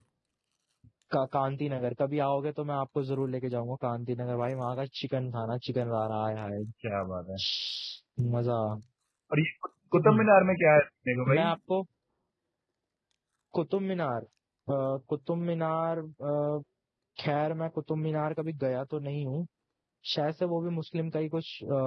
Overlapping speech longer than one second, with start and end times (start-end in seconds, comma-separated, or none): none